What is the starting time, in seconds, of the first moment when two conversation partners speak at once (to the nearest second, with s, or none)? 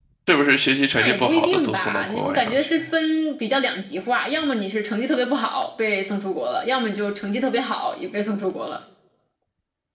1 s